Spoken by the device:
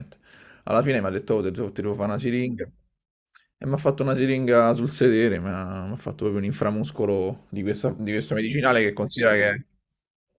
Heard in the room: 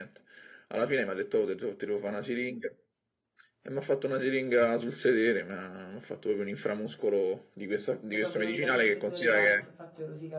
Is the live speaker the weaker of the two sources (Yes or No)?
Yes